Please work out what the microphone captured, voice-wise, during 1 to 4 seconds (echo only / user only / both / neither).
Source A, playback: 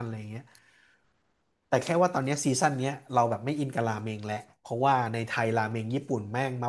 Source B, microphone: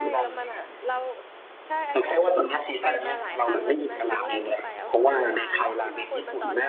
both